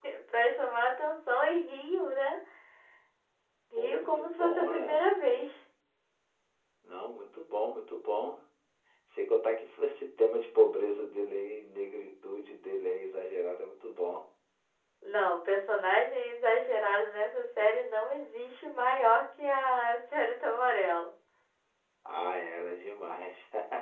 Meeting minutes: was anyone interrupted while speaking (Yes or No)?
Yes